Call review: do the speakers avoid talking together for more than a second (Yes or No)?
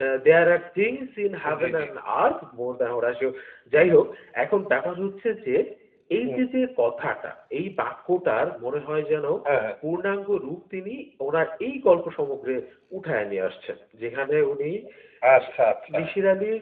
Yes